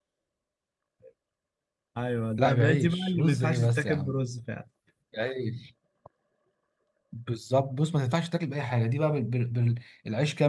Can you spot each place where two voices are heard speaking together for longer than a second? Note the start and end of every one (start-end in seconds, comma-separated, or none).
2.4-4.2